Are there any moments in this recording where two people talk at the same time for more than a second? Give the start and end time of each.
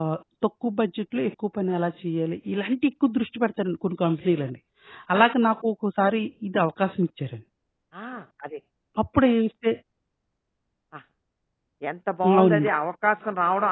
none

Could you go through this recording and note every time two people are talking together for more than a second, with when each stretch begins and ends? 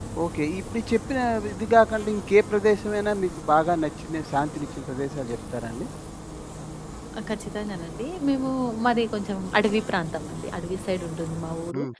none

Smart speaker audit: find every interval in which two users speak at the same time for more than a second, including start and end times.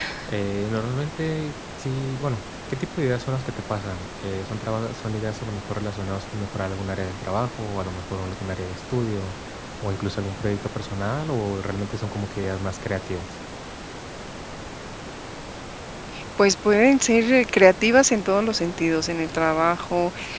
none

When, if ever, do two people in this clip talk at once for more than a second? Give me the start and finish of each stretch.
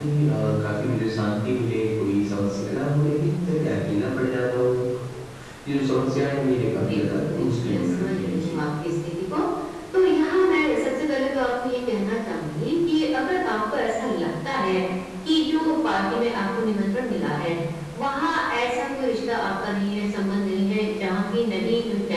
6.7-8.5

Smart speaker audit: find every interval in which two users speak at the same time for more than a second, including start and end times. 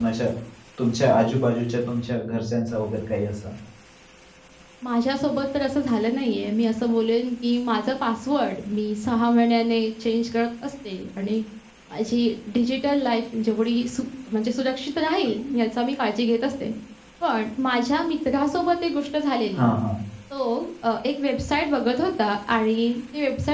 none

